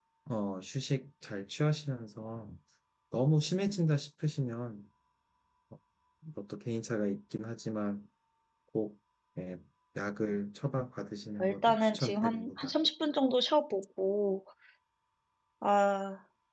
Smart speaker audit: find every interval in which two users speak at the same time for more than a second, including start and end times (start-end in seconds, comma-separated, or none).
11.4-12.7